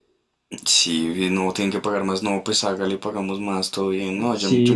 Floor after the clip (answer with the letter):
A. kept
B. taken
B